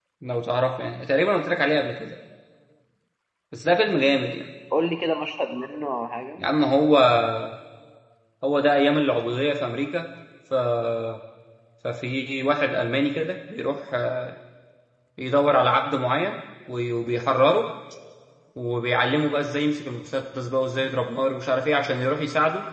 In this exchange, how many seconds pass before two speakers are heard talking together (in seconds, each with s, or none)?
none